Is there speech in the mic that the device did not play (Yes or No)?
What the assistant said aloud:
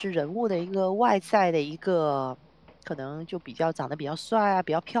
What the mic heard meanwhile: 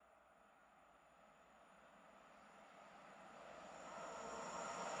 No